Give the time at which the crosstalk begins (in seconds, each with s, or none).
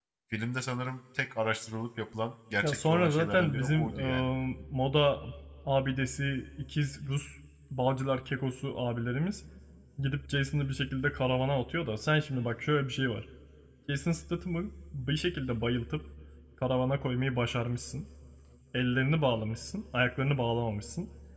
2.6 s